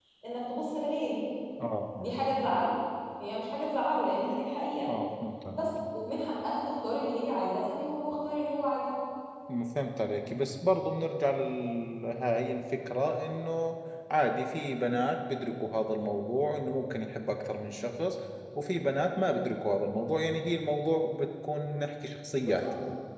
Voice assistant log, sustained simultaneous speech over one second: none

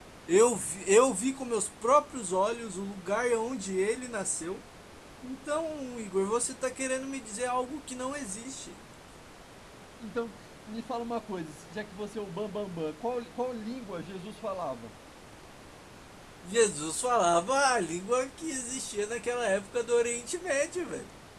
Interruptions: none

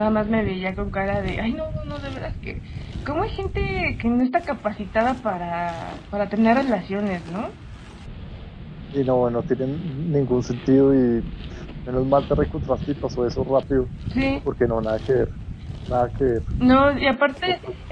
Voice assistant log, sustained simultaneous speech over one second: none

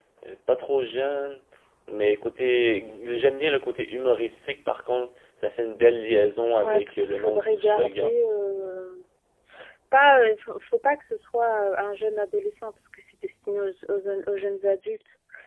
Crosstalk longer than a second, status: present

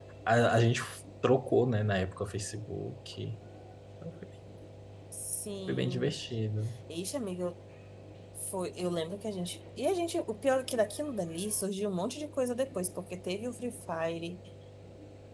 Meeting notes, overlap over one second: none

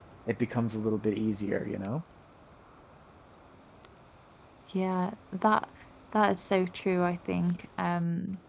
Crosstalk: none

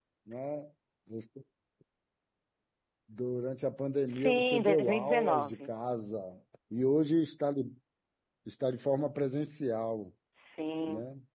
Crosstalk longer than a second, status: present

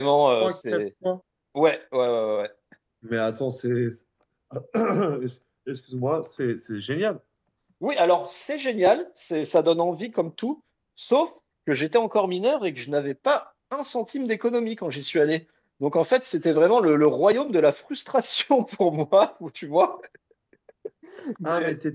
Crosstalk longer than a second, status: none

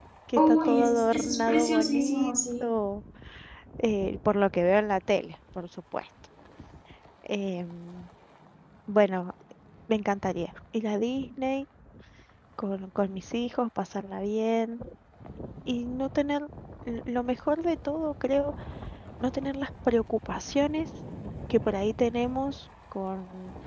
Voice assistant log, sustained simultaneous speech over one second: present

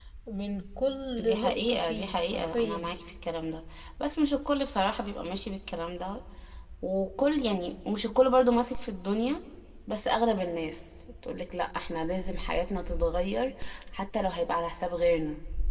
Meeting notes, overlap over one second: present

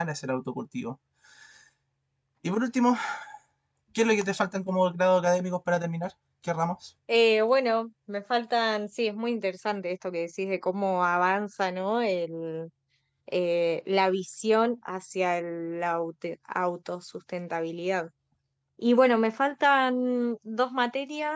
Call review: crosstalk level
none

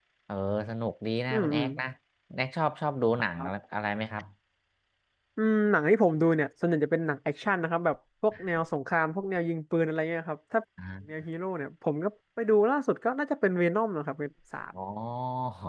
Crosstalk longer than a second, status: none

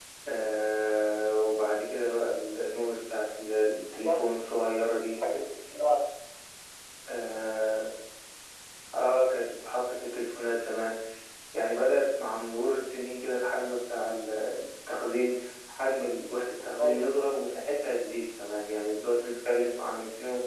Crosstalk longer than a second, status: none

